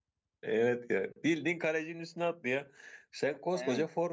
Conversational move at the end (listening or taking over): listening